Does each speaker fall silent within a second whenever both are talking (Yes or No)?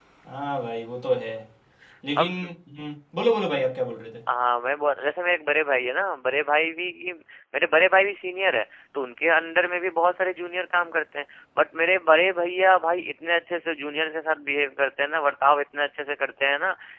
Yes